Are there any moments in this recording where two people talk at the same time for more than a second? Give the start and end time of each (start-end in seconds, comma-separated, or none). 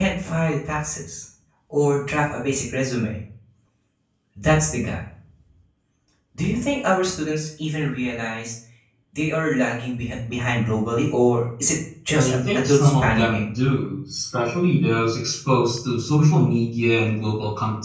12.1-13.5